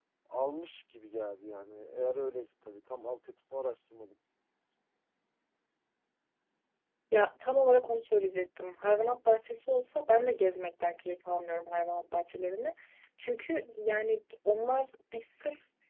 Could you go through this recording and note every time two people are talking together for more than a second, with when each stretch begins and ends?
none

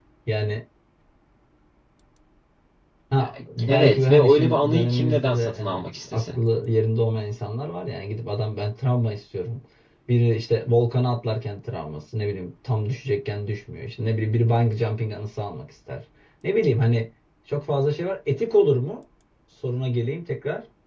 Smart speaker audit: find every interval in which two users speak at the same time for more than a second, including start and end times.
3.7-6.4

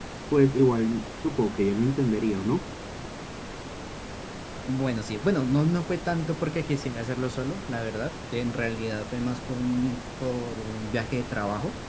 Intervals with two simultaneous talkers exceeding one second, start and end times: none

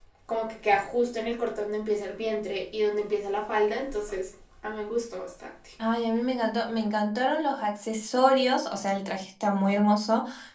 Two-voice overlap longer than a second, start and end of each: none

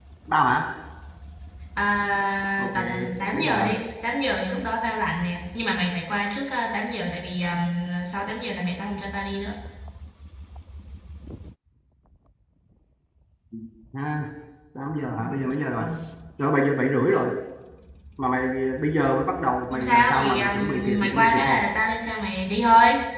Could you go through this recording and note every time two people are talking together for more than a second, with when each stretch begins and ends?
19.7-21.6

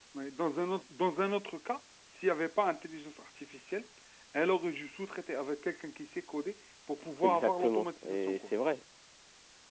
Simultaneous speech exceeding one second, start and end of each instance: 7.2-8.5

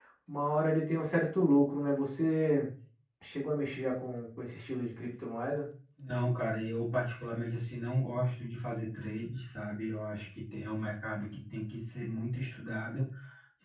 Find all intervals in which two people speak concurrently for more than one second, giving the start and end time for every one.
none

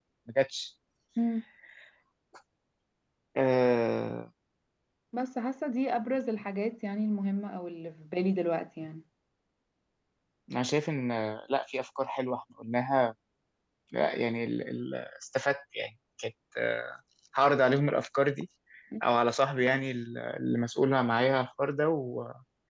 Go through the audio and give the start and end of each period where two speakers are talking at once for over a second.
none

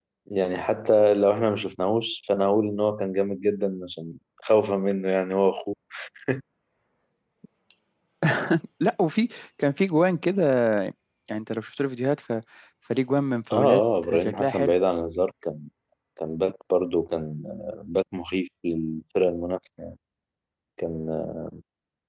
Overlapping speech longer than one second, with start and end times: 13.5-14.7

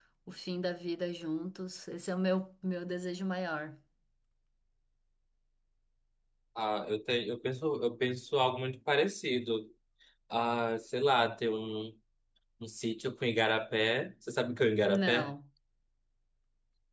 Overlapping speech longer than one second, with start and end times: none

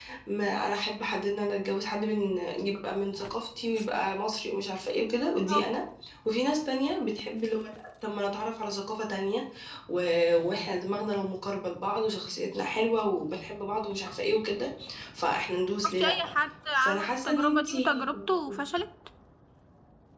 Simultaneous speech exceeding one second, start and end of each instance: 16.8-18.1

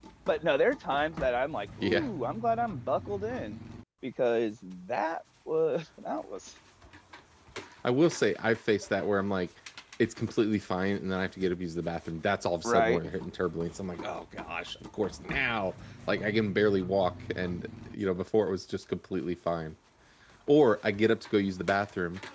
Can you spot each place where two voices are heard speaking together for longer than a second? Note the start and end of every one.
none

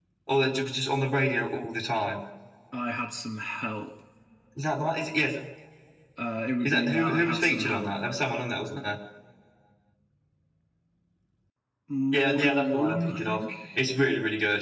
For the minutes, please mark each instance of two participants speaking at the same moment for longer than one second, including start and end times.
6.6-7.9, 12.1-13.4

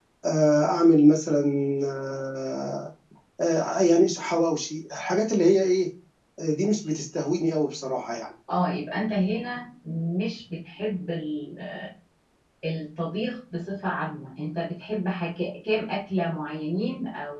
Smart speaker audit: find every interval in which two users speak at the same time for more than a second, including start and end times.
none

